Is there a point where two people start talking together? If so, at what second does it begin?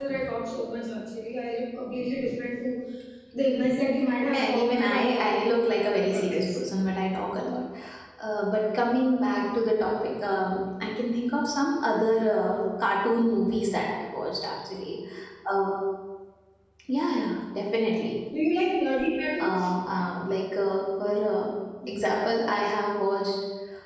4.3 s

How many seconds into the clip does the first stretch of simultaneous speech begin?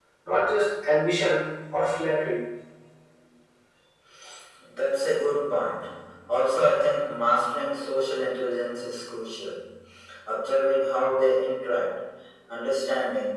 none

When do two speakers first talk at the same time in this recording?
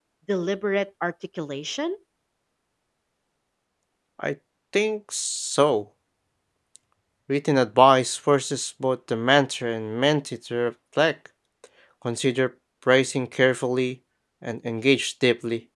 none

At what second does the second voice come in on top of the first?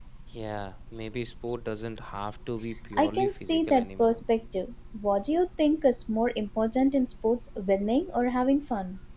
2.9 s

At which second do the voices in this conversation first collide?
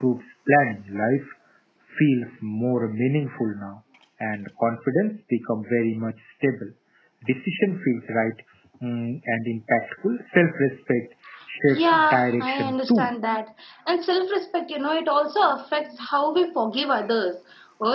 11.7 s

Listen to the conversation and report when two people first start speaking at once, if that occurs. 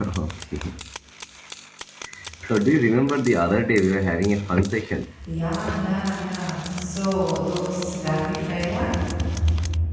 none

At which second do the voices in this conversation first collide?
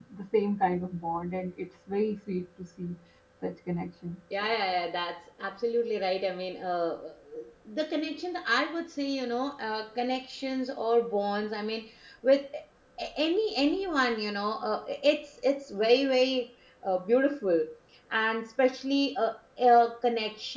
none

